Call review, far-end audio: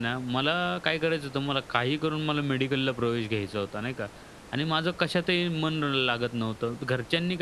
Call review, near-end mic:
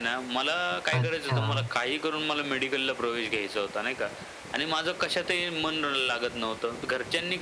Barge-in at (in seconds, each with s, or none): 0.9 s